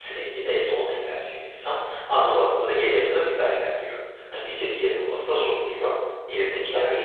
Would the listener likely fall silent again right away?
Yes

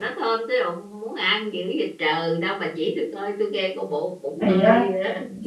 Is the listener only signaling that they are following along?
No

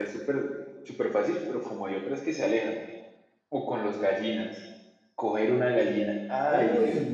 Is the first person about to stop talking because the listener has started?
Yes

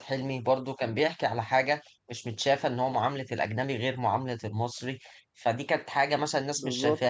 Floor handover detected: No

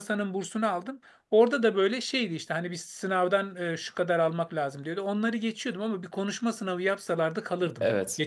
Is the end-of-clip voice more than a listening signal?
Yes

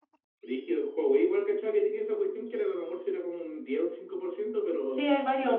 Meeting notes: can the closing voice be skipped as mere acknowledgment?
No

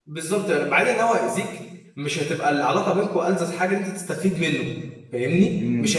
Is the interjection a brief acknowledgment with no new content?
No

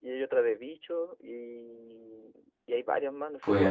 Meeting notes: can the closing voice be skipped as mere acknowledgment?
No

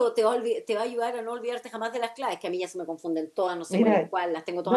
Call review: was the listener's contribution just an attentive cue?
No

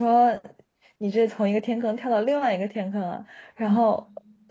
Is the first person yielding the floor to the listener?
No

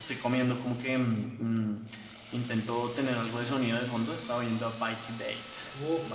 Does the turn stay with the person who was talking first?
No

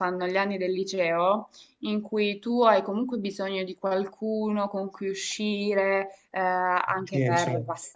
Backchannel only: Yes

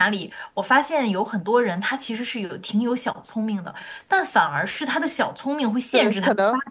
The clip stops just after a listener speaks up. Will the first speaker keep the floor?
No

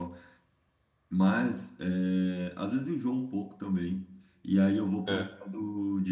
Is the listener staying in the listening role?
Yes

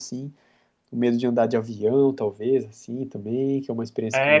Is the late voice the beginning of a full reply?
Yes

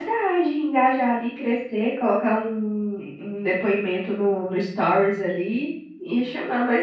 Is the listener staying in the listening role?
Yes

